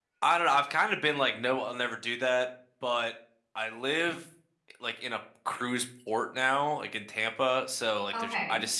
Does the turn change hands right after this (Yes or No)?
No